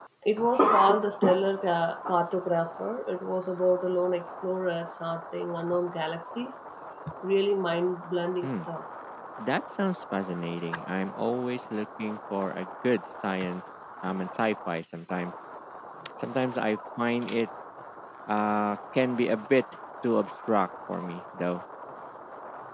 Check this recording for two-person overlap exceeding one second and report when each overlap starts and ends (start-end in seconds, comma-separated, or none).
none